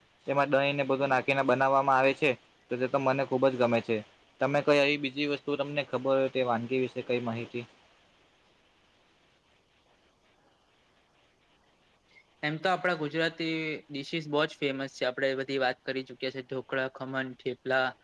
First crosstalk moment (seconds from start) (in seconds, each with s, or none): none